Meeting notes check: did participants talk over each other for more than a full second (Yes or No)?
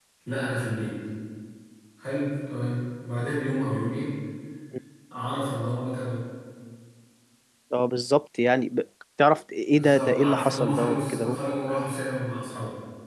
Yes